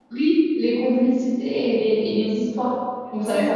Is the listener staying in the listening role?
No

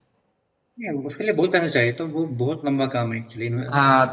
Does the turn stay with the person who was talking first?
No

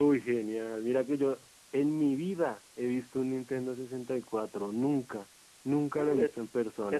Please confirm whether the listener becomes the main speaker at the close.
Yes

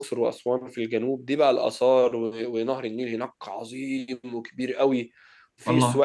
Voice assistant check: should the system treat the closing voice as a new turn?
No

